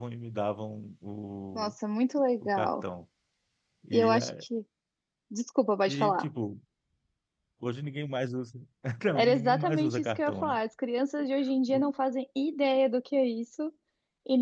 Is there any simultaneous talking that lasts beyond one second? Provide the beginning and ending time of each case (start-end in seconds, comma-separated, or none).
9.2-10.6